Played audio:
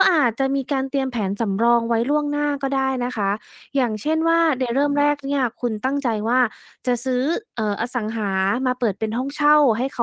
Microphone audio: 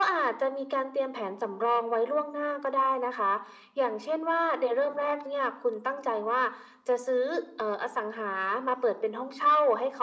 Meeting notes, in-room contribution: none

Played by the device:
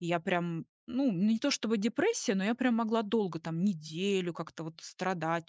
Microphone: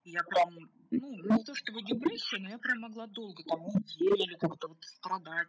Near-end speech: none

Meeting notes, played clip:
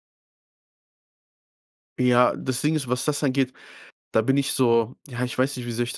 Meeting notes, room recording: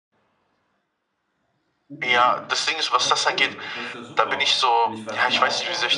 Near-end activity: present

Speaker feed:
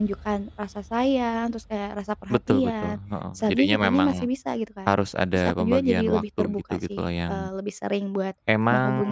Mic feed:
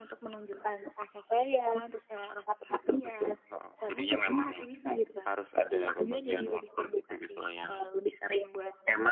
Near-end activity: none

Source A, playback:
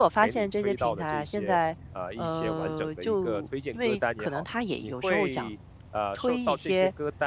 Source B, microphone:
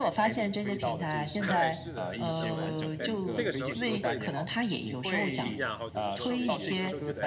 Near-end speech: present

